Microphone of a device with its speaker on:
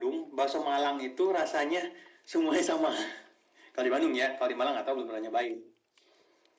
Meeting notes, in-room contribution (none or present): none